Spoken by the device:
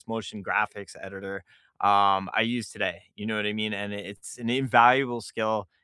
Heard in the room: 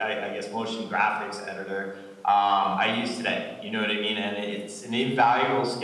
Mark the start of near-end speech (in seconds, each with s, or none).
none